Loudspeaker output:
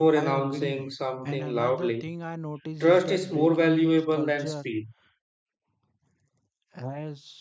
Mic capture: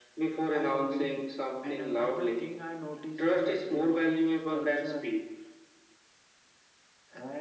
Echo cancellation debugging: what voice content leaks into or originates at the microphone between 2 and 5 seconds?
echo only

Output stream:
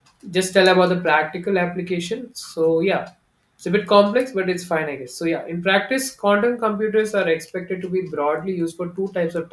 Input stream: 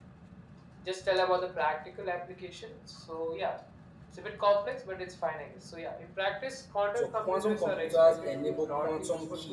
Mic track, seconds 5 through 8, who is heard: both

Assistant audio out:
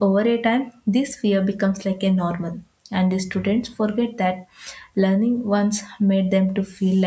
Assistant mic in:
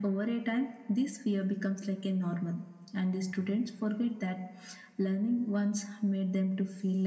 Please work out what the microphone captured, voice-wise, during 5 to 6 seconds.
echo only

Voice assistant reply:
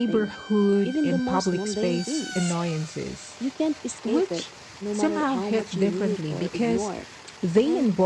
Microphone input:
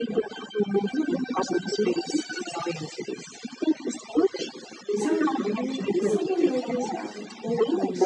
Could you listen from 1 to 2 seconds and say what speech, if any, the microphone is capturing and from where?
echo only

